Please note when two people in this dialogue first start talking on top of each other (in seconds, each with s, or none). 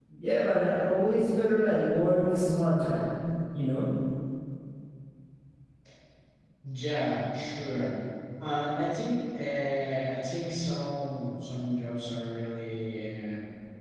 none